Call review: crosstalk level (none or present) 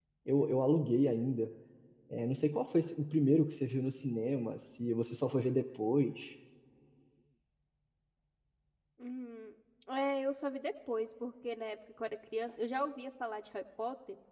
none